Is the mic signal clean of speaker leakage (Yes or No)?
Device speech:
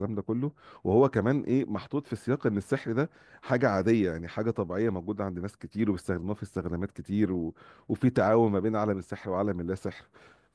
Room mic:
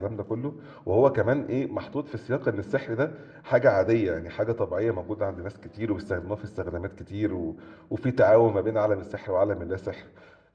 No